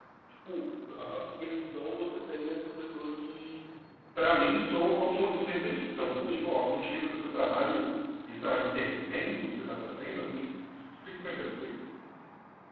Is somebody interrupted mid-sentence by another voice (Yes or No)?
Yes